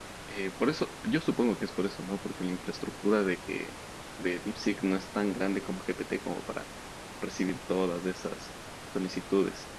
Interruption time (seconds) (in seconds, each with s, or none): none